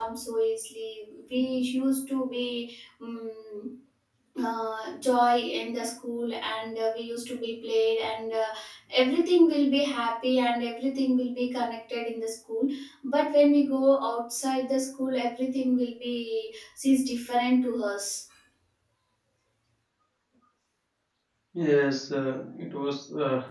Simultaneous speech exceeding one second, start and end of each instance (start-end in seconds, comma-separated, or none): none